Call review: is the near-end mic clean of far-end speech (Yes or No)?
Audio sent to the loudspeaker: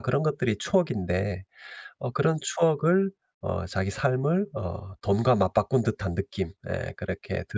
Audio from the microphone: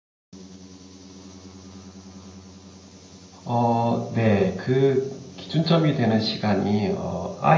Yes